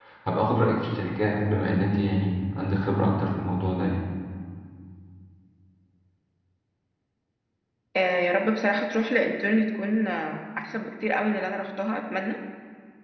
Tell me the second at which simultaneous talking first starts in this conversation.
none

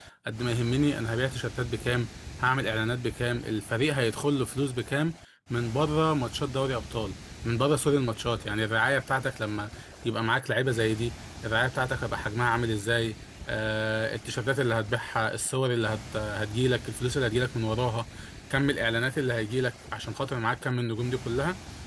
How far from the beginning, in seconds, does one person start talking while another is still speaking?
none

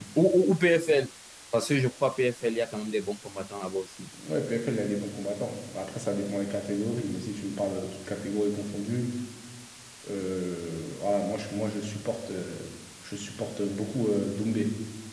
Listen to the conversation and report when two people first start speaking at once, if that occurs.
none

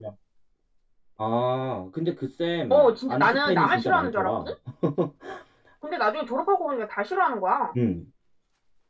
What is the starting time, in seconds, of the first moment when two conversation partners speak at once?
3 s

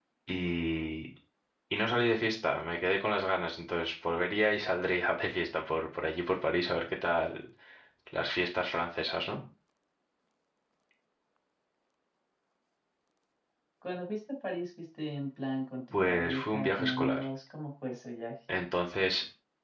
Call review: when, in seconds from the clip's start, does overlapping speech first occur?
16 s

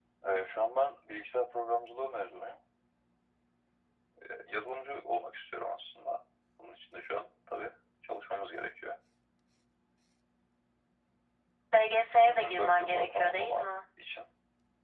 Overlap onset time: 12 s

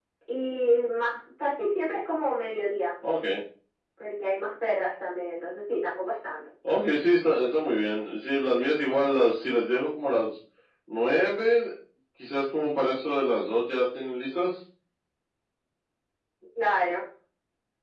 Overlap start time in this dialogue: none

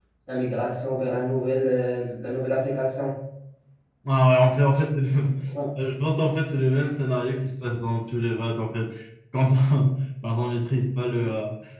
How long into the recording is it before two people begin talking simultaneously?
none

